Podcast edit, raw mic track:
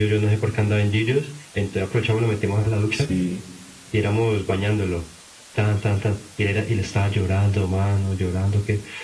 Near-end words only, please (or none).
Sí,